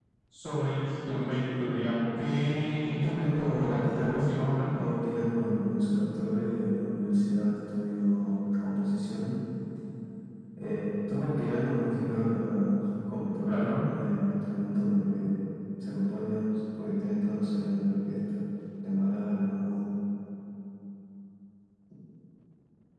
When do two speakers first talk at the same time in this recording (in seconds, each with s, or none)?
3.0 s